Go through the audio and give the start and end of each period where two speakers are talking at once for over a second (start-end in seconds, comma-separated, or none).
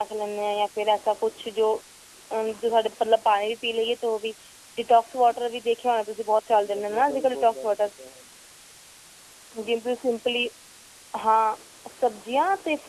6.5-7.8